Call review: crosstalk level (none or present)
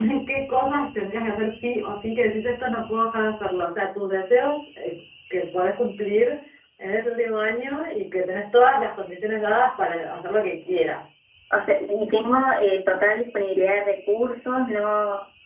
none